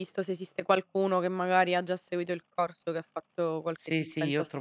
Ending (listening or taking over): taking over